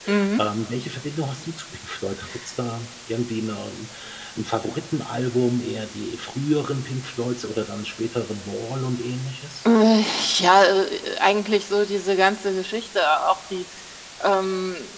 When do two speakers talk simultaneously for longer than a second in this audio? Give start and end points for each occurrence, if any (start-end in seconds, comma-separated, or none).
none